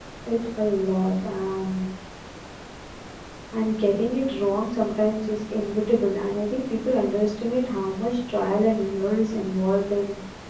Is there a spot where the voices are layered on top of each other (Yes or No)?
No